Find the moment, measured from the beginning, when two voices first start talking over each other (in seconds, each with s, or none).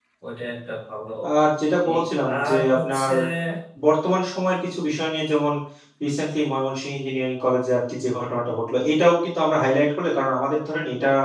1.9 s